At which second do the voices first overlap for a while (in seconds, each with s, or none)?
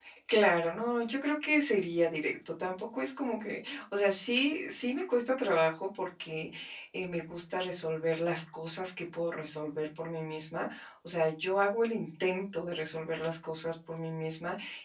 none